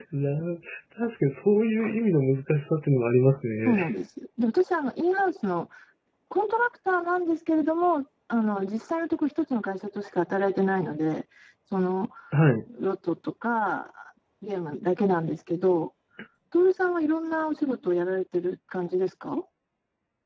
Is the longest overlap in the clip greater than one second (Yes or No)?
No